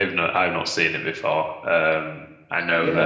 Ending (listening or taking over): taking over